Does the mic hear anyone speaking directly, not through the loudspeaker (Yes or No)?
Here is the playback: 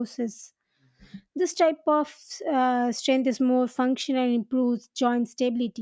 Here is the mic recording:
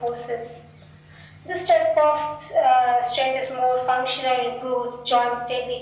No